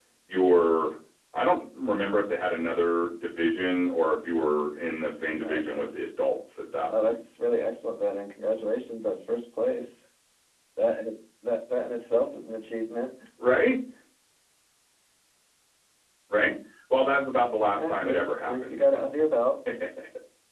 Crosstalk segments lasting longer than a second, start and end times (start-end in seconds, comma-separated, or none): 17.8-19.1